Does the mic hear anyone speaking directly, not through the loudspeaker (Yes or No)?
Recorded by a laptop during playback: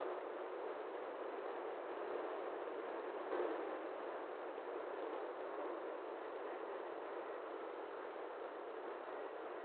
No